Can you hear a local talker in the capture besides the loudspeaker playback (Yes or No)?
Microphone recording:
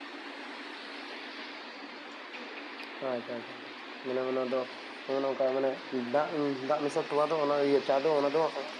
Yes